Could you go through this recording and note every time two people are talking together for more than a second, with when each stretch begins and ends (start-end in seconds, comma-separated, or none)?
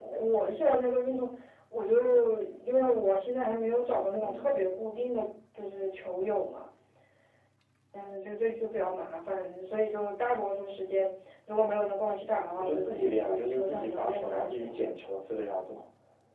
12.6-14.9